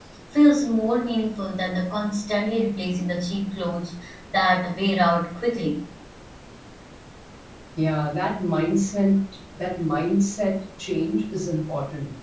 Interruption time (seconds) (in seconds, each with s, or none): none